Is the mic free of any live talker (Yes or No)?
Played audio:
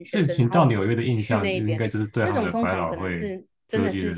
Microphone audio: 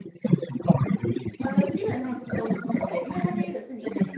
No